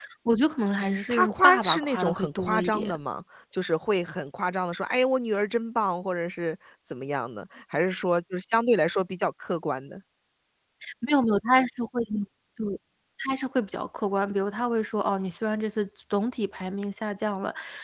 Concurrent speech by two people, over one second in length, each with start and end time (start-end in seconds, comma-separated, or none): 0.8-3.0